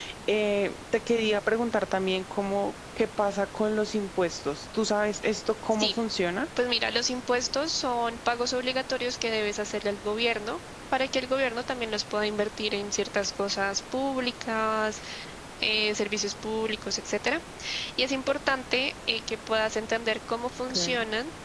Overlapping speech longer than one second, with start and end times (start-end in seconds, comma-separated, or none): none